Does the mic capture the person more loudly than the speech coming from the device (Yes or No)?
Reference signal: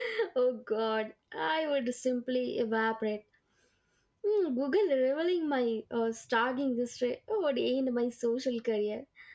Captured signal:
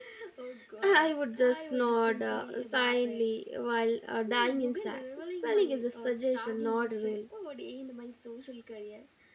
Yes